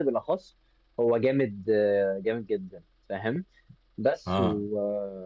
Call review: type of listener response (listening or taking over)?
listening